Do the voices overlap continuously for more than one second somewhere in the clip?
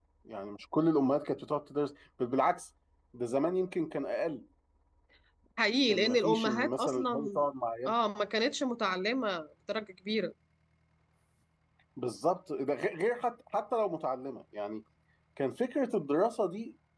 Yes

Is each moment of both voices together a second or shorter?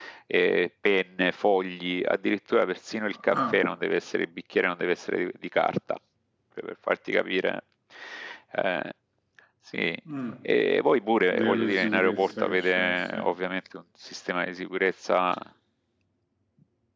No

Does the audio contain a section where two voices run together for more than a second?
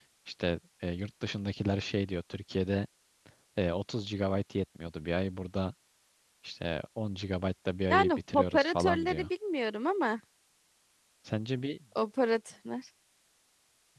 Yes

